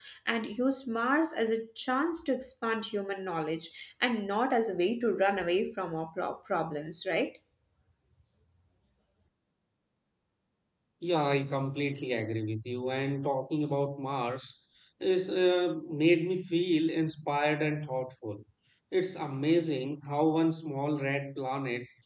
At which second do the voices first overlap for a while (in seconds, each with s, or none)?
none